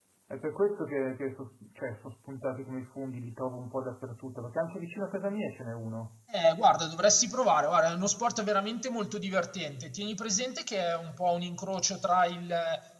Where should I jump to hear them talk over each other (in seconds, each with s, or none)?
none